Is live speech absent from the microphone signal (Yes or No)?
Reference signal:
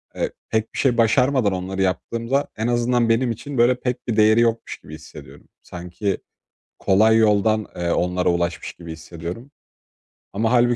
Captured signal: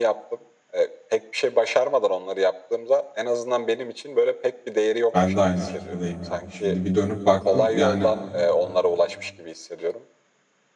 No